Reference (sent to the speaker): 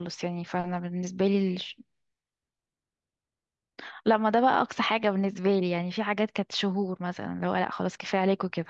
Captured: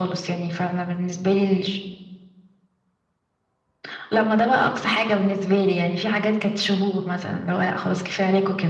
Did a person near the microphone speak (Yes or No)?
No